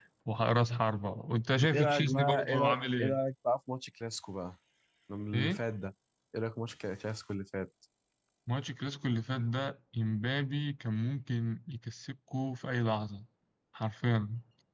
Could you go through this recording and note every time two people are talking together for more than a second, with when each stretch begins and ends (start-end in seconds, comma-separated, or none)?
1.7-3.2